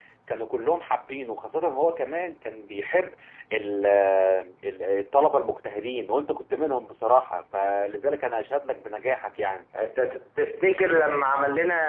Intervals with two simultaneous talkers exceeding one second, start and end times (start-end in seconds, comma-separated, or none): none